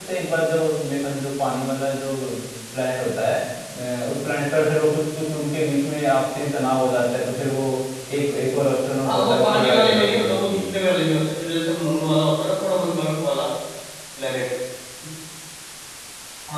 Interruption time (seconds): 9 s

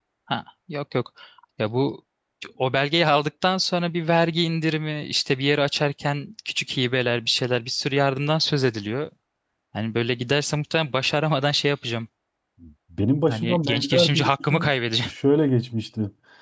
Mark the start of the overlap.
13 s

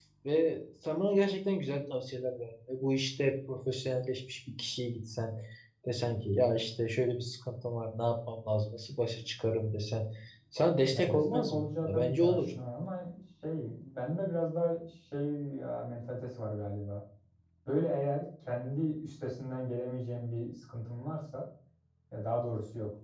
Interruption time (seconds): 11 s

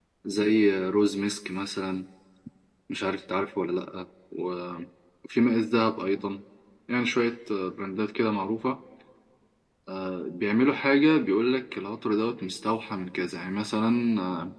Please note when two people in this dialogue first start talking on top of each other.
none

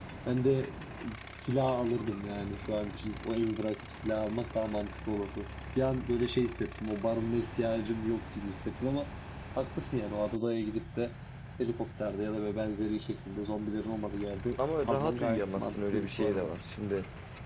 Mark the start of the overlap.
15 s

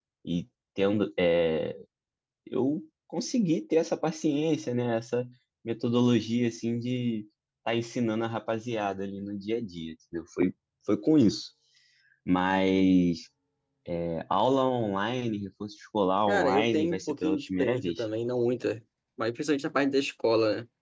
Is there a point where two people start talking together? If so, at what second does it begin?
16 s

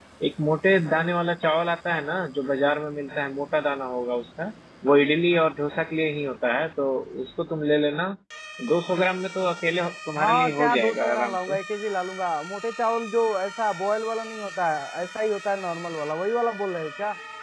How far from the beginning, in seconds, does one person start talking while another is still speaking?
10 s

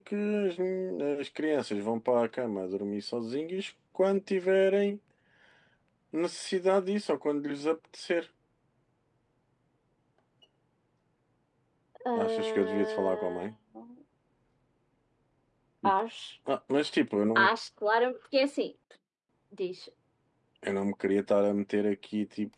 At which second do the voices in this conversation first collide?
12 s

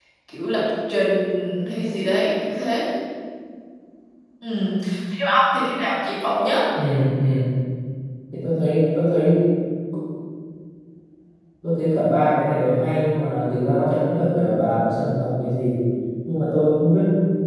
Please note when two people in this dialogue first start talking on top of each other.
none

